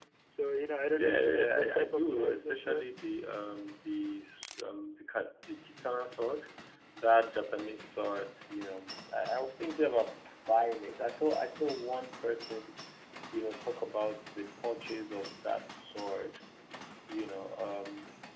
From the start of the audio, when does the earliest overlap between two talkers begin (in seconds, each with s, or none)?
0.9 s